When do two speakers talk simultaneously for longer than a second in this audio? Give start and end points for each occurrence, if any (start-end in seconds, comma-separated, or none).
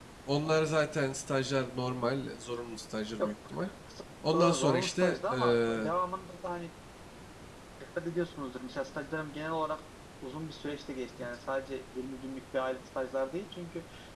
4.3-5.9